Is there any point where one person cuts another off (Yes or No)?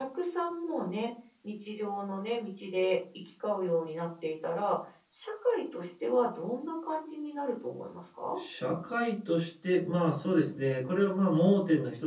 No